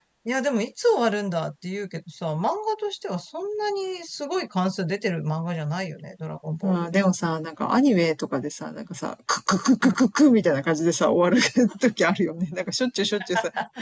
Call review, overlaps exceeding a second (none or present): none